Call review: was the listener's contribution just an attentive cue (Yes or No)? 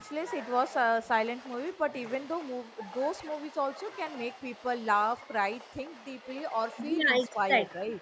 No